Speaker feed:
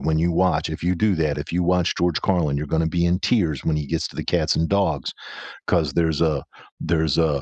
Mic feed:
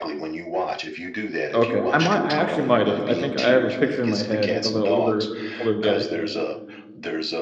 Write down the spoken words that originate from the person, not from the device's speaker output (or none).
Okay, I might I actually might’ve, I think I have a picture in my head of a older older guy.